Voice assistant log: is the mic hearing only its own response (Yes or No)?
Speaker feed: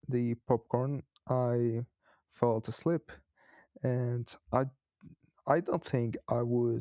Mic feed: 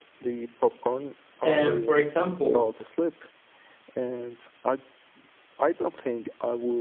No